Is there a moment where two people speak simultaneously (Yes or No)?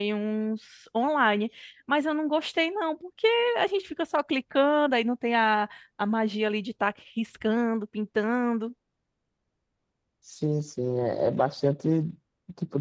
No